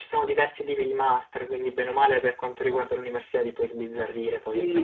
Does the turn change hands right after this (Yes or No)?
Yes